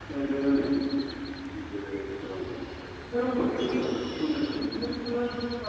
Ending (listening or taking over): listening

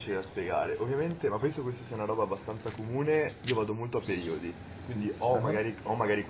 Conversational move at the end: listening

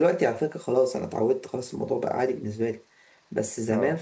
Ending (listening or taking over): listening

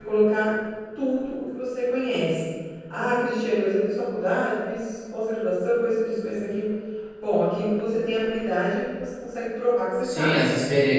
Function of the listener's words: taking over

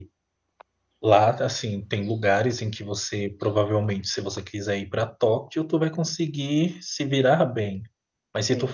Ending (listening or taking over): listening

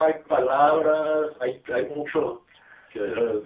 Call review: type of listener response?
taking over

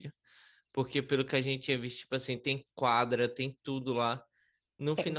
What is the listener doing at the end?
listening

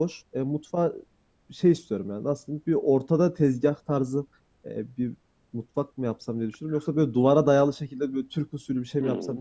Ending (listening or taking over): taking over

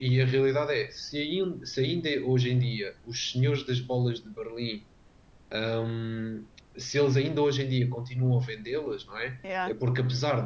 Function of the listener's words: listening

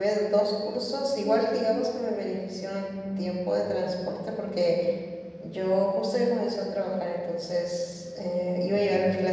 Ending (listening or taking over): listening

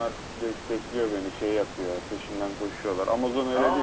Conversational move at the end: taking over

